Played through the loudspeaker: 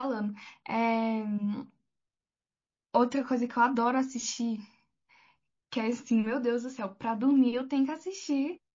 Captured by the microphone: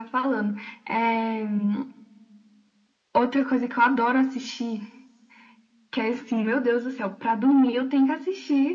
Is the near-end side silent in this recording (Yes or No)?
Yes